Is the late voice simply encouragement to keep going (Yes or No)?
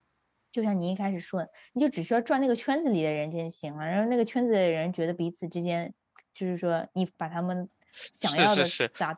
No